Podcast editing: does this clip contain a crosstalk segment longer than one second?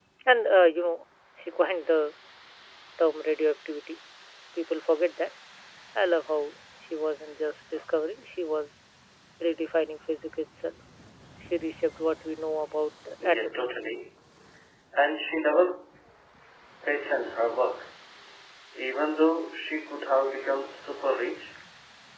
No

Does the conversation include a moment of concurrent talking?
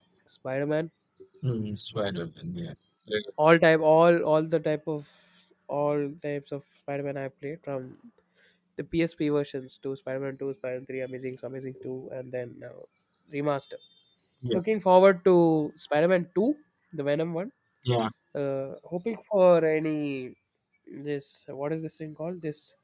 No

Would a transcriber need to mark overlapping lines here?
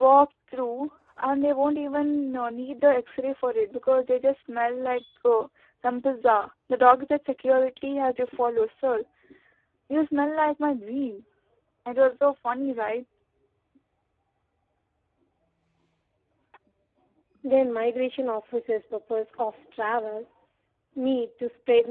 No

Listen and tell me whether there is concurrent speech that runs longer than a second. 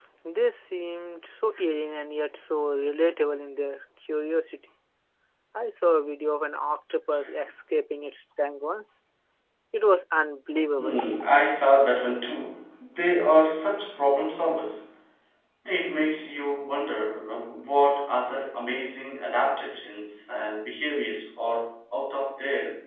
No

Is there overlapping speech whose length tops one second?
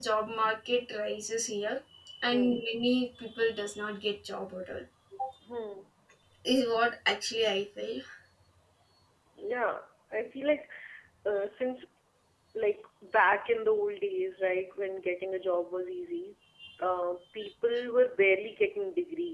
No

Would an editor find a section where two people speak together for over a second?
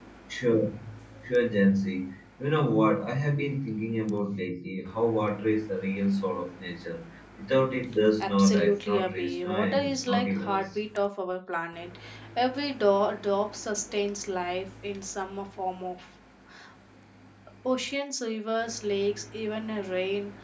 Yes, from 8.2 s

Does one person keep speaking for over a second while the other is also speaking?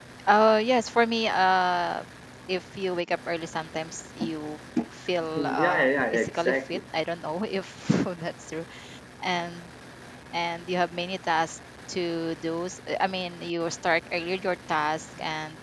Yes, from 5.4 s

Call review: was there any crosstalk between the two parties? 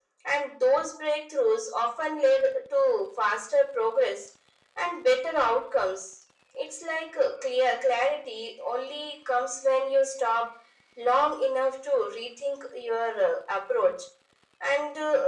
No

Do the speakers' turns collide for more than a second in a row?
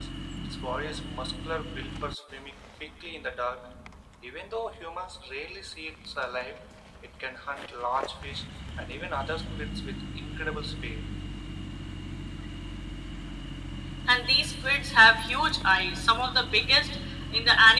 No

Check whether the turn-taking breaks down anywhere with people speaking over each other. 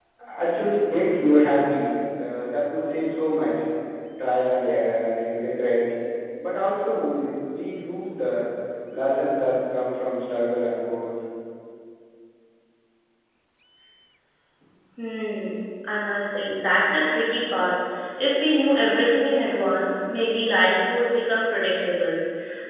No

